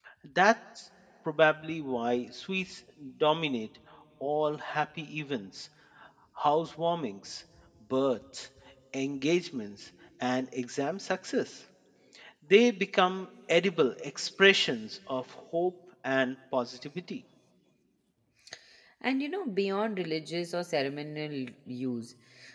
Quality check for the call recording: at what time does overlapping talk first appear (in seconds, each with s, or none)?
none